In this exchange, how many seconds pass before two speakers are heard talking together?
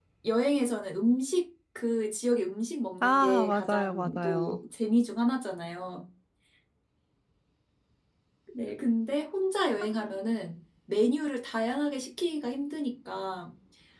3.0 s

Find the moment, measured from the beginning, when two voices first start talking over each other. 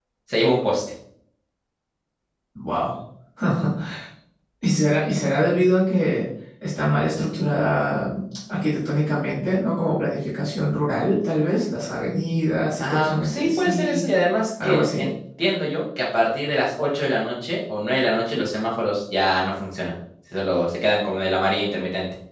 12.8 s

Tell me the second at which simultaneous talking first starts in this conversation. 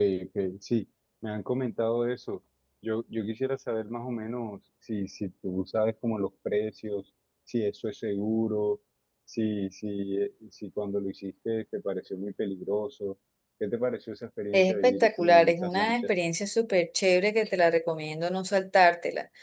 14.5 s

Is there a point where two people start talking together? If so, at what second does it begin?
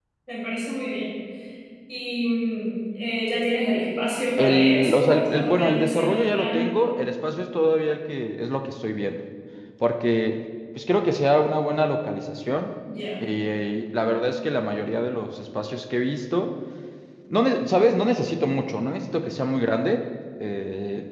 4.4 s

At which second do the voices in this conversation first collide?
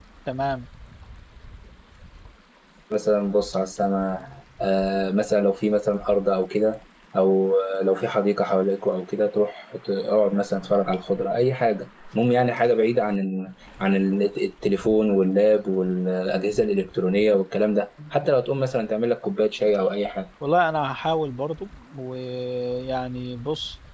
none

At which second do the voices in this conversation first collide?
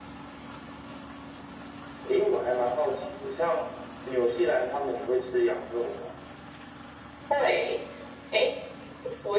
none

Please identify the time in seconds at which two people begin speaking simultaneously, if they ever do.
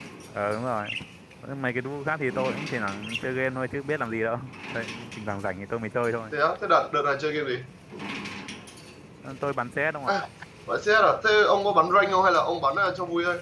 none

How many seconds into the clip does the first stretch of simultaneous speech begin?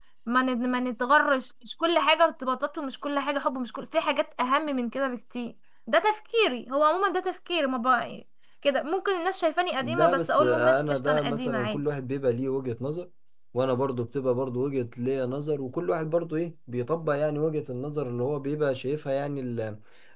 9.8 s

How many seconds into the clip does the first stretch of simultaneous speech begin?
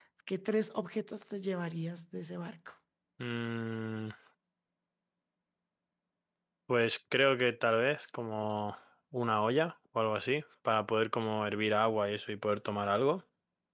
none

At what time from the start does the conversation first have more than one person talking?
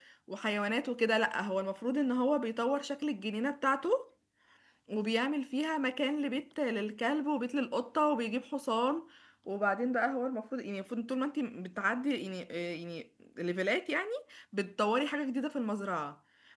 none

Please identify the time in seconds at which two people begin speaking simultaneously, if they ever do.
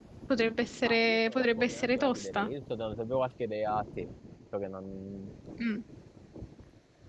0.9 s

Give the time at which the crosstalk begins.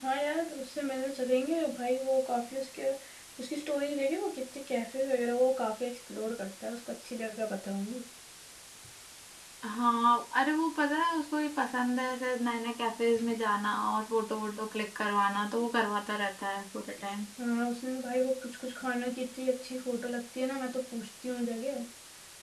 none

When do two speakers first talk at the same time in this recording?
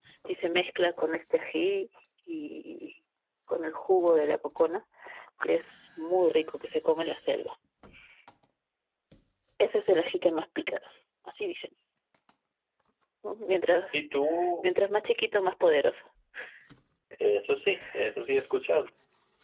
none

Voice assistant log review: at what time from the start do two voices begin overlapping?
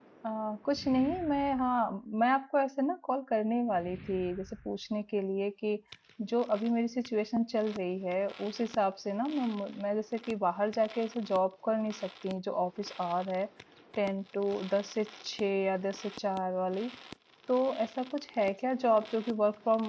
none

